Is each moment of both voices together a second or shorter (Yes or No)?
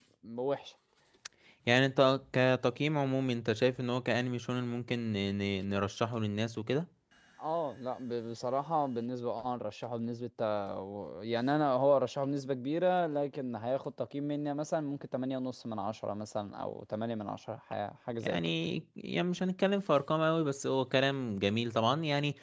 Yes